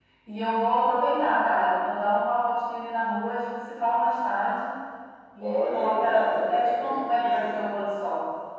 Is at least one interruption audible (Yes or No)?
Yes